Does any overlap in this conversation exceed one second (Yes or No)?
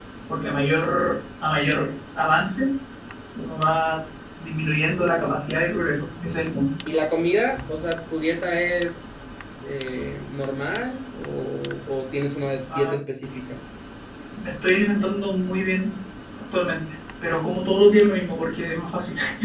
No